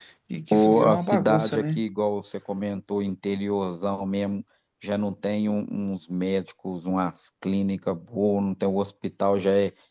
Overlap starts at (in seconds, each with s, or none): 0.5 s